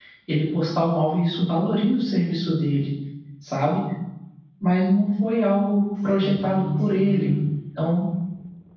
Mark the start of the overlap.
5.9 s

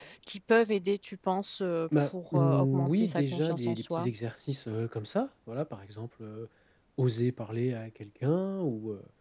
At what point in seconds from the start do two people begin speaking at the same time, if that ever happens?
1.9 s

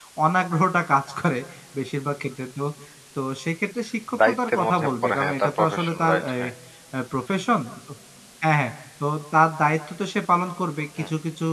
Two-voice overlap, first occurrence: 4.1 s

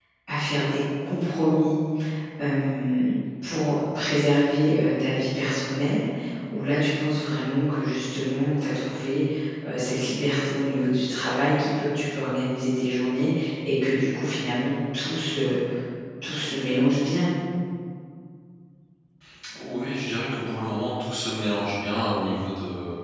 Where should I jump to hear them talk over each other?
none

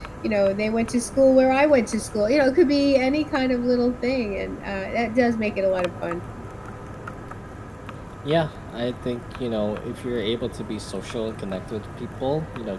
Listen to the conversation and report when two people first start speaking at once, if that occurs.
none

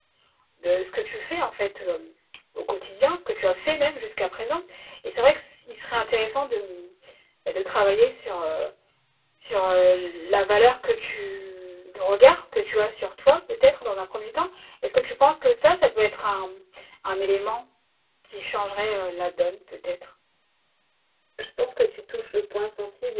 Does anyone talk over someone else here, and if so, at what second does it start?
none

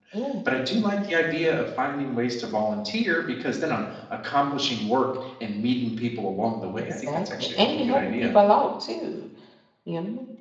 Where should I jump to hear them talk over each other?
6.8 s

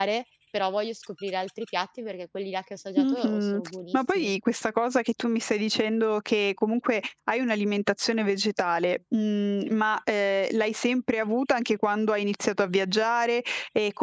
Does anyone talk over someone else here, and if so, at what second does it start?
3.0 s

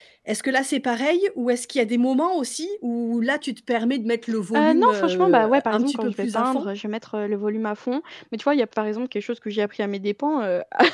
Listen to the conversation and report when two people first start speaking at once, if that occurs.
4.5 s

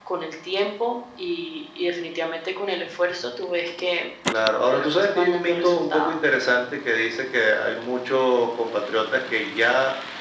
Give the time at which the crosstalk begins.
4.6 s

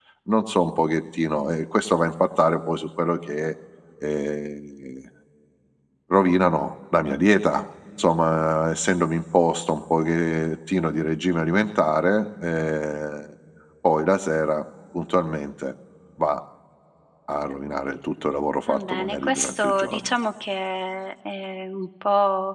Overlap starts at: 18.7 s

